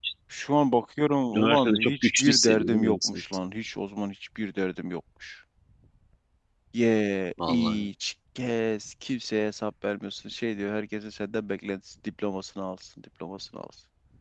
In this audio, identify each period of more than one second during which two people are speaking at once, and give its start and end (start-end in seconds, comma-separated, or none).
1.3-3.2